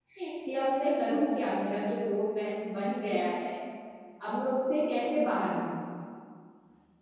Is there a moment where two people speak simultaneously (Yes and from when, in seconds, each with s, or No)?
No